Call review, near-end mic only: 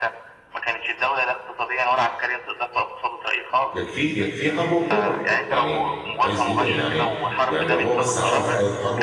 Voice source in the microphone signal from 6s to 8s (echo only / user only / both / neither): both